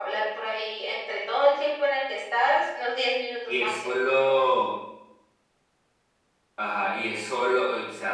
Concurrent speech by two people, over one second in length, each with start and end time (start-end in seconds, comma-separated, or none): none